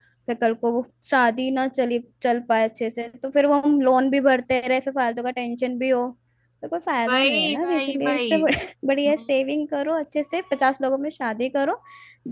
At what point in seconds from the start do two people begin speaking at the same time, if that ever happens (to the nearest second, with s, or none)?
7 s